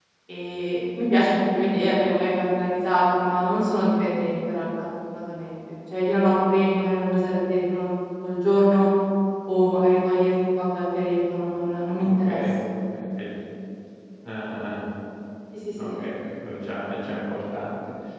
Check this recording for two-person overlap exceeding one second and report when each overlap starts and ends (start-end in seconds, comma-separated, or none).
none